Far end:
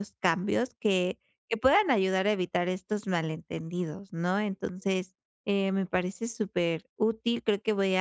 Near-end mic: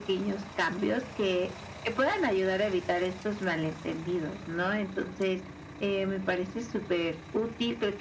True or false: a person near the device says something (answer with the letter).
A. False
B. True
A